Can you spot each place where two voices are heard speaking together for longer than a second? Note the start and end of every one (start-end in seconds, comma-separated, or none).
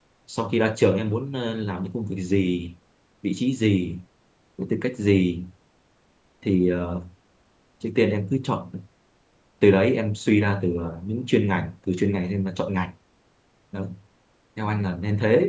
none